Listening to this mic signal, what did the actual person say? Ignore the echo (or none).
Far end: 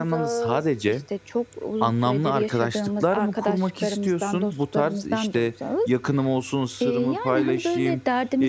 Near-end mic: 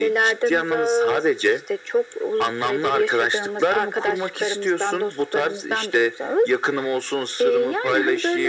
none